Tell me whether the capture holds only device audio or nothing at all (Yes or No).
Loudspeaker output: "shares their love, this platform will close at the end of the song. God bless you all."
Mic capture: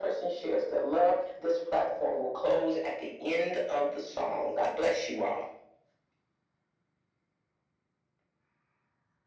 Yes